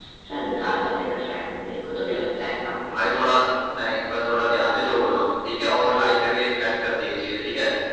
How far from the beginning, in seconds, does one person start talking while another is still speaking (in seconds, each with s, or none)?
none